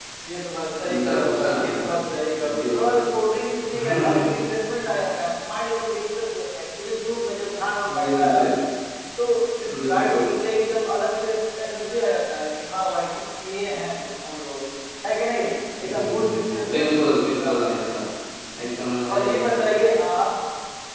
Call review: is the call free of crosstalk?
No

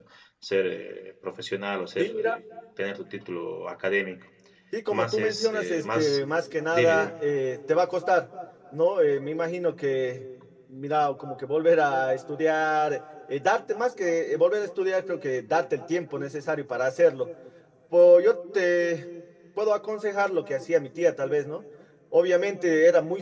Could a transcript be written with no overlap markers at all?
No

